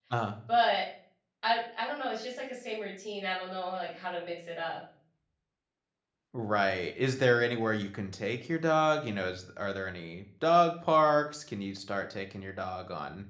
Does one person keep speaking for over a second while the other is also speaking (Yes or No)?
No